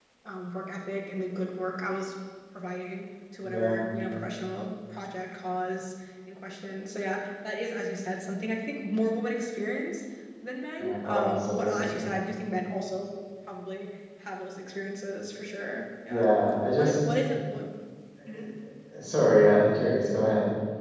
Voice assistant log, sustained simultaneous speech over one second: present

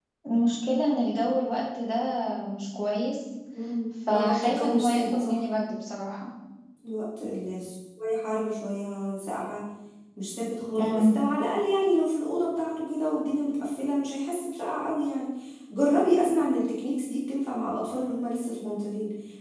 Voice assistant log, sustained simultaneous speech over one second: present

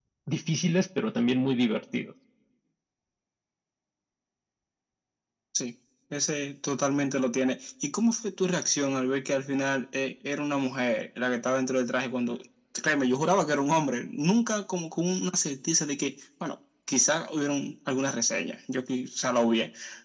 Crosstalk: none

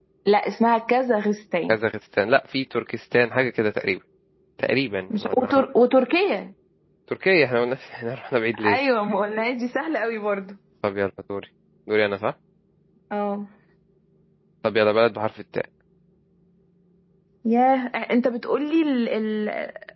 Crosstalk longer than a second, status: none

